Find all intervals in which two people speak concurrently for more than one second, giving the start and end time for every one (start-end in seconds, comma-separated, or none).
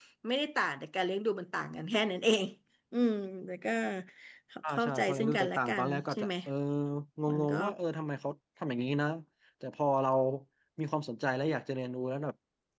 4.7-6.3